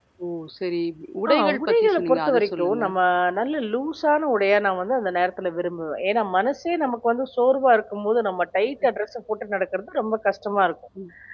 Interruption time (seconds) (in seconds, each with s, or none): 1.3 s